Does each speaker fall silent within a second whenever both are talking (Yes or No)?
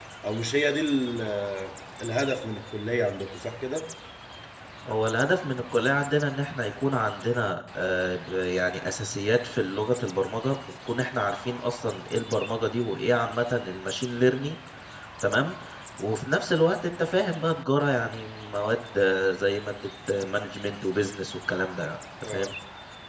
Yes